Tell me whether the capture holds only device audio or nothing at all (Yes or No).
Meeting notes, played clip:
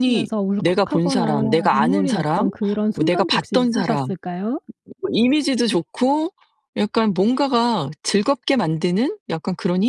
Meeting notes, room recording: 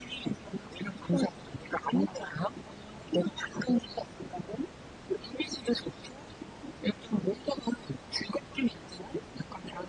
Yes